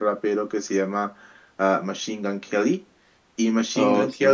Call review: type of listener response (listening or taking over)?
listening